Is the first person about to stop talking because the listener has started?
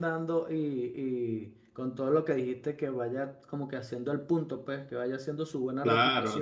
Yes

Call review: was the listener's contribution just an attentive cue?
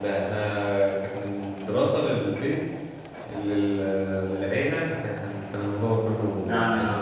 No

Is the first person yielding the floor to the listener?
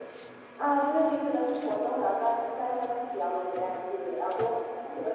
No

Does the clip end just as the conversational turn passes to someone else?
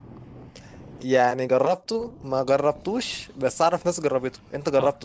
Yes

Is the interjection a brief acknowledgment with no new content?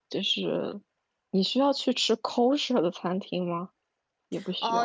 No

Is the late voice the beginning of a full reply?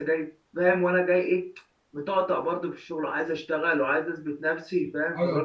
Yes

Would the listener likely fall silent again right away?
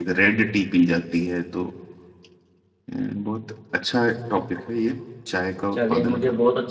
No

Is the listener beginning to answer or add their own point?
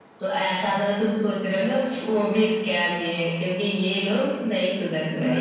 Yes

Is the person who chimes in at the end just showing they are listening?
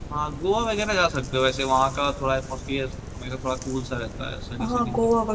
No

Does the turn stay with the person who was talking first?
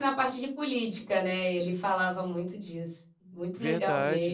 No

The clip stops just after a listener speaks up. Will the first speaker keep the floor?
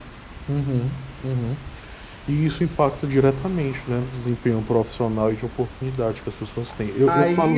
No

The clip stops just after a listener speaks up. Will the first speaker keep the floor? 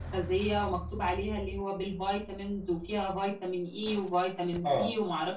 Yes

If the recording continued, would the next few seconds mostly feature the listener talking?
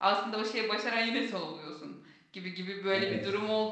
No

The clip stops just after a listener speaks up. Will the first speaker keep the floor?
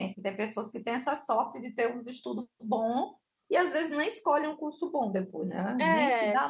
Yes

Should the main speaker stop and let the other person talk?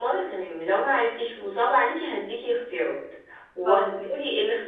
No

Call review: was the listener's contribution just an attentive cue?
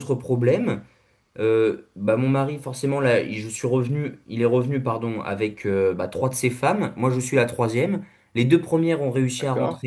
Yes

